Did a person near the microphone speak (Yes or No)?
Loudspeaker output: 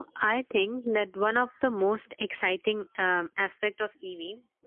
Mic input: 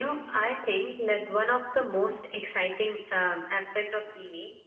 No